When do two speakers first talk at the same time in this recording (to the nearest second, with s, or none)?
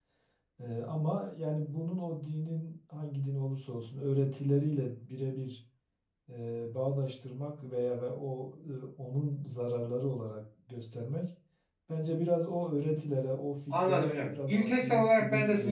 14 s